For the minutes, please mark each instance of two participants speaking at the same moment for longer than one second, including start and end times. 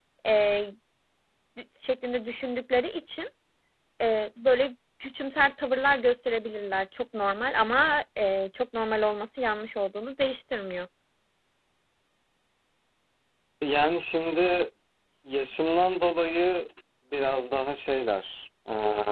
none

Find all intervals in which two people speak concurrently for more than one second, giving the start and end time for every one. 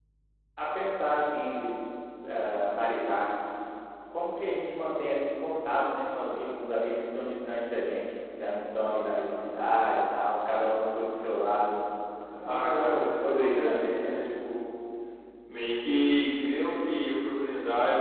12.5-14.1

